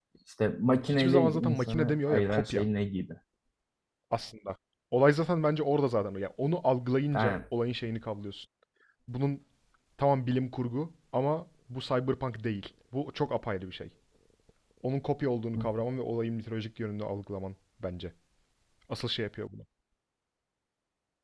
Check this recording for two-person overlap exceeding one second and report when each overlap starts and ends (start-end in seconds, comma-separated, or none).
0.8-2.6